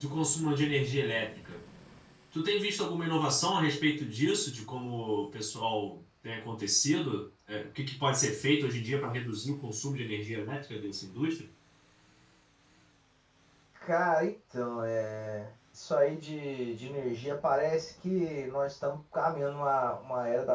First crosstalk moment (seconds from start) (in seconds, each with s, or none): none